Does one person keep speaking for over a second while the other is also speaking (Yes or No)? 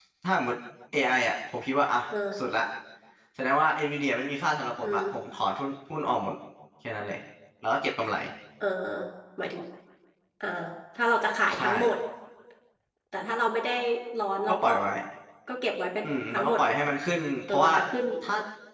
No